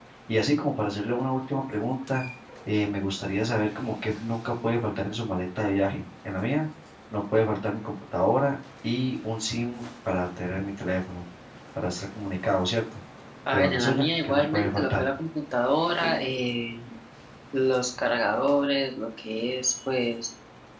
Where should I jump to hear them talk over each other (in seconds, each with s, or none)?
13.5 s